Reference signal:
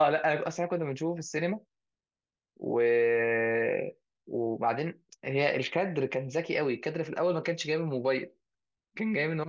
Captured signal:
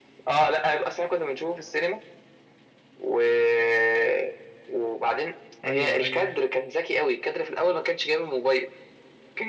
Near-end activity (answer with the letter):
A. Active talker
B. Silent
A